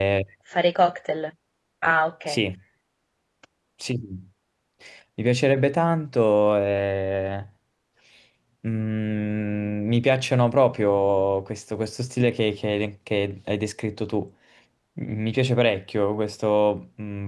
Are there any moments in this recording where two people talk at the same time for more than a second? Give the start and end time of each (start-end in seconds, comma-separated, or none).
none